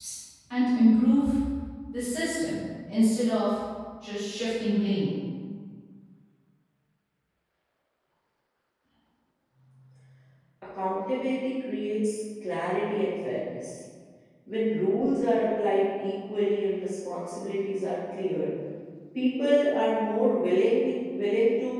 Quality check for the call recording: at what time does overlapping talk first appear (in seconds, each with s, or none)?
none